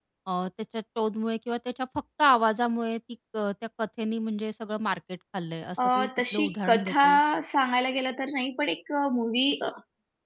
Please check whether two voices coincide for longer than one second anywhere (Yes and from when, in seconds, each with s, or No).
Yes, from 5.8 s